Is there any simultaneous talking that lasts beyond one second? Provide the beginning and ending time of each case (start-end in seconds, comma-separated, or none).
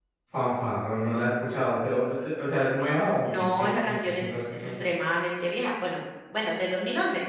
3.2-4.8